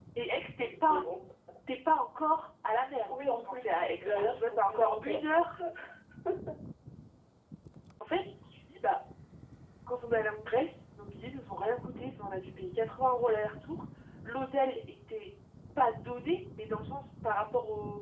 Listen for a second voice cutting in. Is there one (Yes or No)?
Yes